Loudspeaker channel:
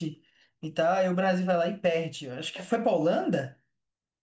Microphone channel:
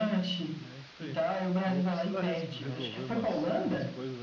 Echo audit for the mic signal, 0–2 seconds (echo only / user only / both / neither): both